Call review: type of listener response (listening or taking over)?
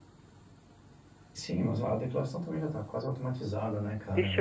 taking over